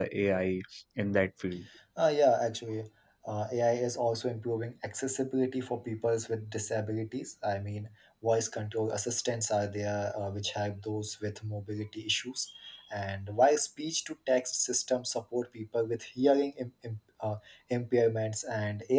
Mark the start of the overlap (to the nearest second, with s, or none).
none